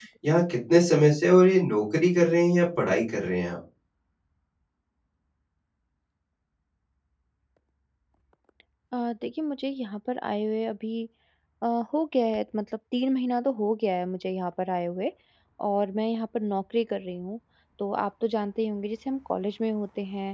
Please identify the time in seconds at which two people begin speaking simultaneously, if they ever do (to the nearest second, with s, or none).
none